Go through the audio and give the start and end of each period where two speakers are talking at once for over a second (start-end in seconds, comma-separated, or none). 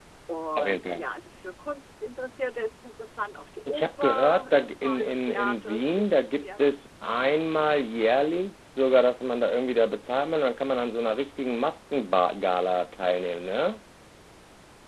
3.7-6.6